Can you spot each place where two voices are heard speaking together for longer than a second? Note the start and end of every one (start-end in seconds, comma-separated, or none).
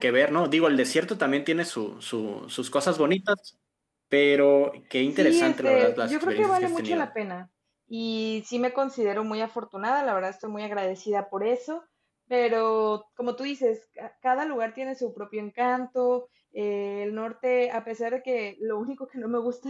5.2-7.1